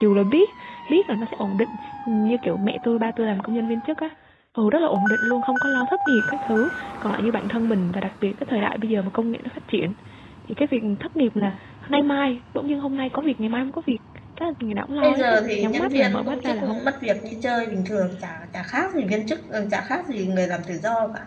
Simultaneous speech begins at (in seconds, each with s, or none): 15.0 s